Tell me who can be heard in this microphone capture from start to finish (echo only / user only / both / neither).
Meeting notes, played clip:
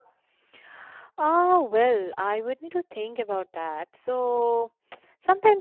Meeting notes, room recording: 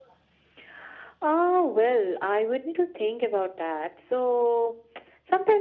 echo only